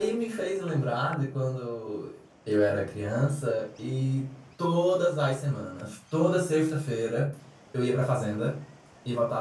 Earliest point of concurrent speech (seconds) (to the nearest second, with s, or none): none